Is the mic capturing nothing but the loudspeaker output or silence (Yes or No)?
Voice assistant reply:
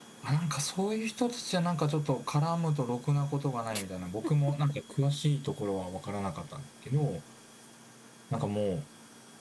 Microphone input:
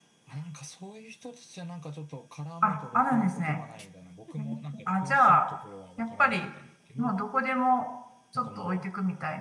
No